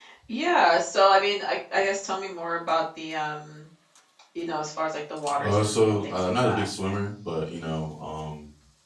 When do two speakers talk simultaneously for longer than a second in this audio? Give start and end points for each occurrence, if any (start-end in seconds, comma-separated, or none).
5.4-6.7